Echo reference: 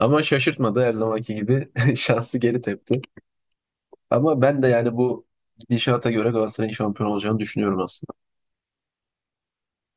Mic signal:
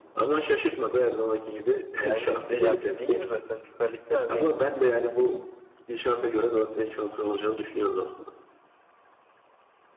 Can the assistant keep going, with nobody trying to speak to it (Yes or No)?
No